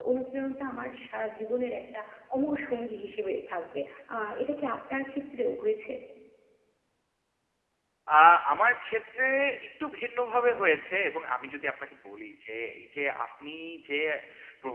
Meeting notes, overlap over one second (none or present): none